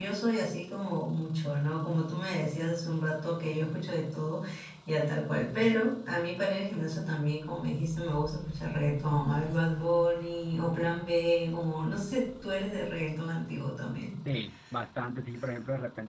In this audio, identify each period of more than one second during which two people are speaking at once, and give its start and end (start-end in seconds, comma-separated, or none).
none